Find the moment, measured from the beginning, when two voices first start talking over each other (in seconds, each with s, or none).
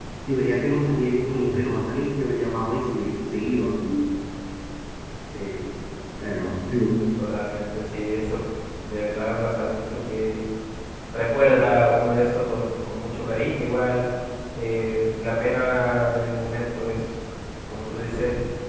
none